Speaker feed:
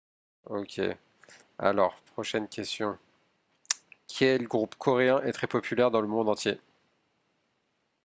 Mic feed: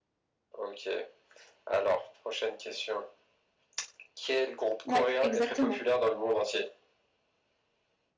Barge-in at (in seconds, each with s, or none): 4.8 s